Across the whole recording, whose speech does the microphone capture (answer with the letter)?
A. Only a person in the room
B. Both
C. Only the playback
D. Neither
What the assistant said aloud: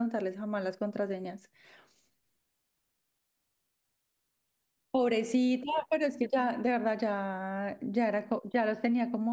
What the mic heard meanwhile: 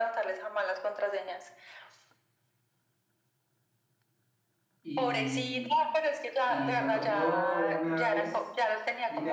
B